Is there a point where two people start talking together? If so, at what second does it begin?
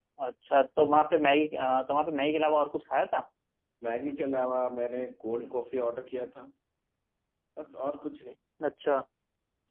none

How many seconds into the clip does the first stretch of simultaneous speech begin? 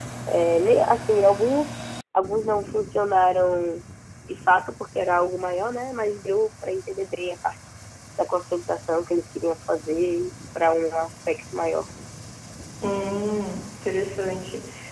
none

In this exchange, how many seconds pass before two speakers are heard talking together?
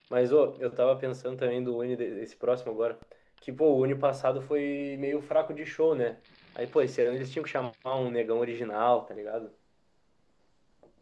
none

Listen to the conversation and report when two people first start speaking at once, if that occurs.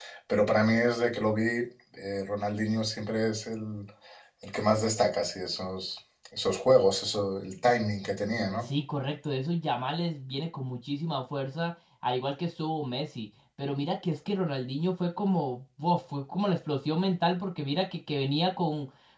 none

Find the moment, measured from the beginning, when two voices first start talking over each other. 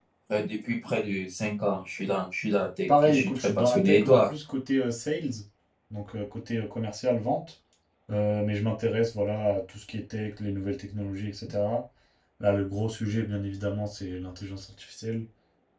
2.9 s

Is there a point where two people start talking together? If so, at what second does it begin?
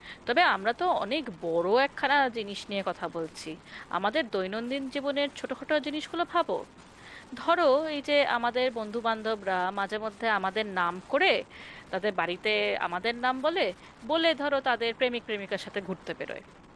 none

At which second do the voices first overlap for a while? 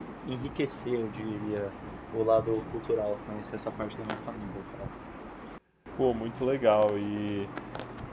none

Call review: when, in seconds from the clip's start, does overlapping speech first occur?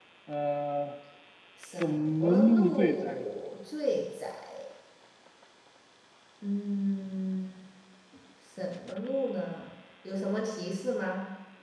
1.8 s

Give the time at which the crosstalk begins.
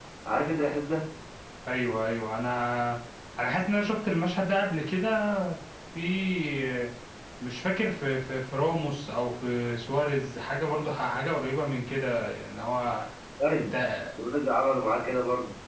none

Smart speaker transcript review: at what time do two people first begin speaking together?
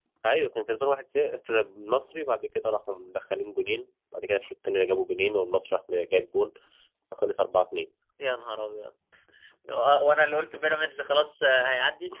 none

